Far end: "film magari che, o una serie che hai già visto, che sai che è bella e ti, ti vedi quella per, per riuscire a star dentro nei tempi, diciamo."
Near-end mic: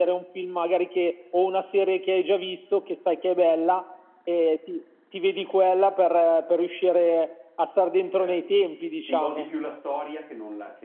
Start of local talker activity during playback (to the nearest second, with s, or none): 8 s